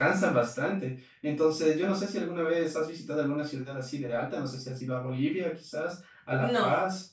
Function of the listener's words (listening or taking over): taking over